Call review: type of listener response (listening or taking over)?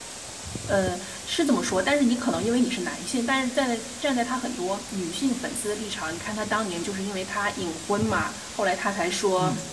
listening